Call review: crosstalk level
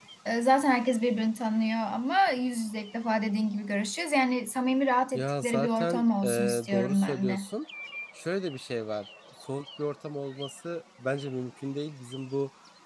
present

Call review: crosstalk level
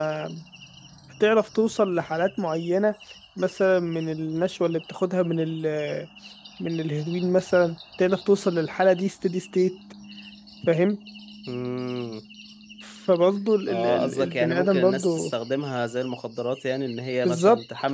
present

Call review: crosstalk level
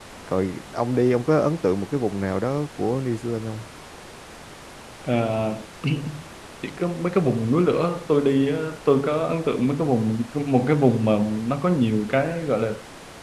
none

